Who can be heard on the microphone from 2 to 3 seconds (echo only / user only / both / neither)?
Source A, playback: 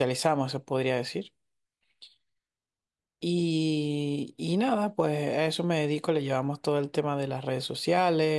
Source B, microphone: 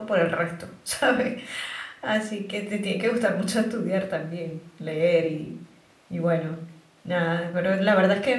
user only